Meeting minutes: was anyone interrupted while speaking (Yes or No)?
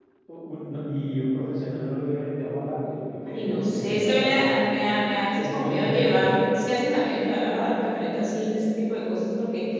Yes